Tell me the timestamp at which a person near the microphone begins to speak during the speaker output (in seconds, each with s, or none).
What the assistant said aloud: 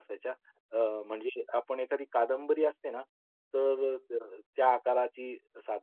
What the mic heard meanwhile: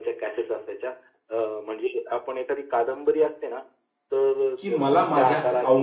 4.6 s